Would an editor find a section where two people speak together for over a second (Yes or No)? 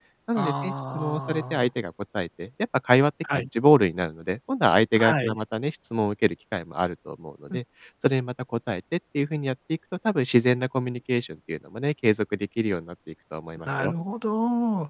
Yes